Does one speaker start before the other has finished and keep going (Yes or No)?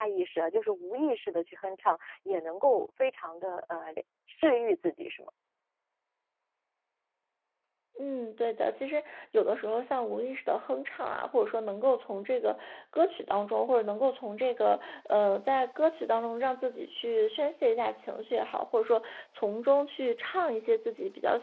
No